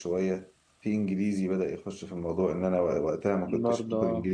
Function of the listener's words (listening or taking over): listening